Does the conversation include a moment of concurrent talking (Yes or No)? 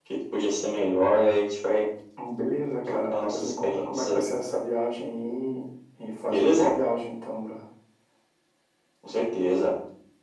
Yes